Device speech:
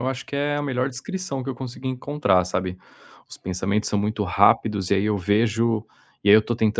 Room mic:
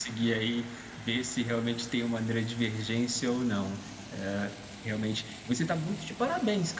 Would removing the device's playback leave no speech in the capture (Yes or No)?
No